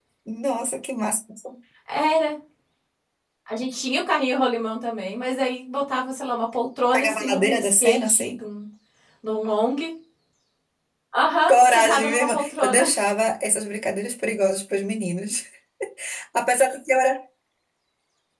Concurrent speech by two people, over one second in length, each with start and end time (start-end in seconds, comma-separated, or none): 6.9-8.4, 11.5-12.8